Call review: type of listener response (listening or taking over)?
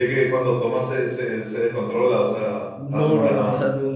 taking over